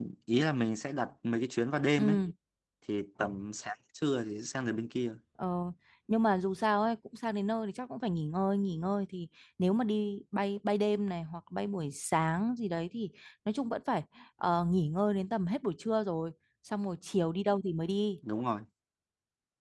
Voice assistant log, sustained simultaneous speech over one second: none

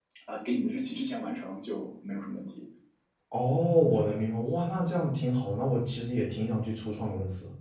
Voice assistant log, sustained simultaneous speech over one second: none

